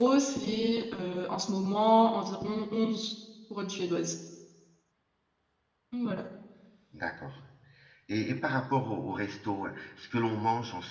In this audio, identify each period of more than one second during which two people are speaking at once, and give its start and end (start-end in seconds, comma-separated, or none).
none